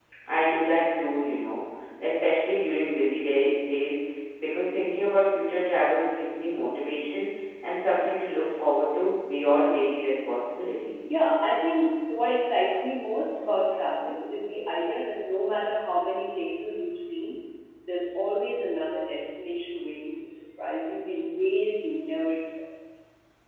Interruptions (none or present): none